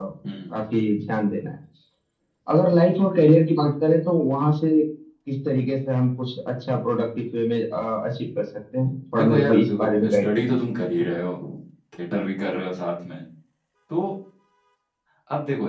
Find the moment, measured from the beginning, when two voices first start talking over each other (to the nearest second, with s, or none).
9 s